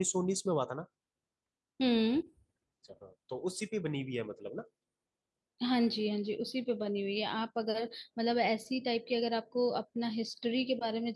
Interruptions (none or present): none